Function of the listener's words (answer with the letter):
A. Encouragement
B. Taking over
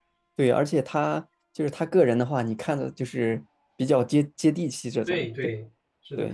B